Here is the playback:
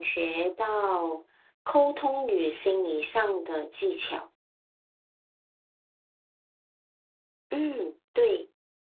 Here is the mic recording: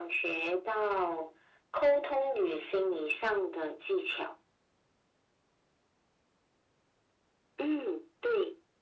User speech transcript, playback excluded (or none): none